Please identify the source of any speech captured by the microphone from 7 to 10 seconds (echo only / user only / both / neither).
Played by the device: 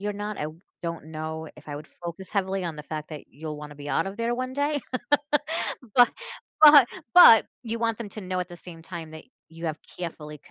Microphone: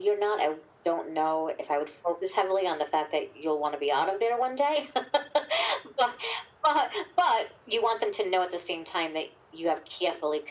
echo only